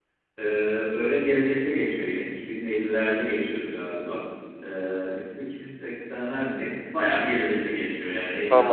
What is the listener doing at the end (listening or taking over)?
listening